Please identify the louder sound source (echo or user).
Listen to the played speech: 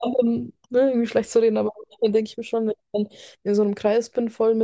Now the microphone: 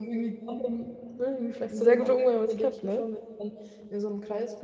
user